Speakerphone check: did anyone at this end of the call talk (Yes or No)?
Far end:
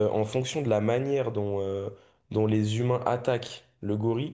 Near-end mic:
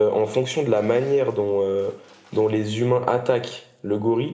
No